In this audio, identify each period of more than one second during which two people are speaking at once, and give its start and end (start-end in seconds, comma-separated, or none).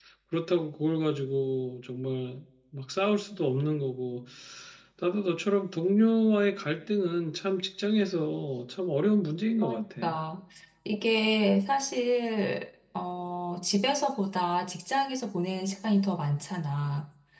none